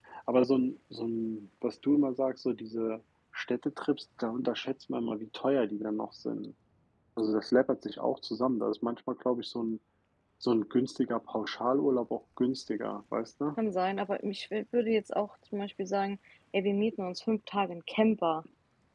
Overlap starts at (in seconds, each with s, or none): none